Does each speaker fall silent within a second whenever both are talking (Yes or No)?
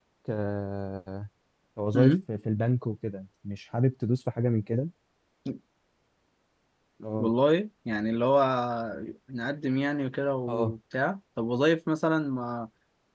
Yes